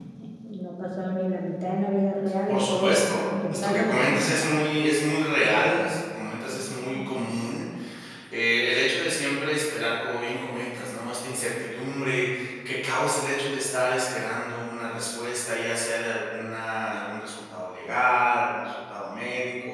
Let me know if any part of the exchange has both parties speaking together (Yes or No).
Yes